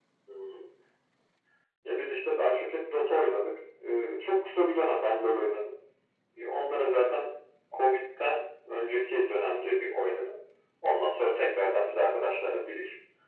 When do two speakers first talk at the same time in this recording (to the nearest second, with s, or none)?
none